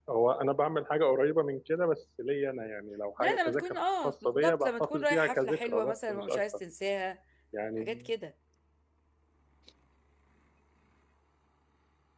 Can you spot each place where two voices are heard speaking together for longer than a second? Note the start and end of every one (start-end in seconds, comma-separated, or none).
3.2-6.4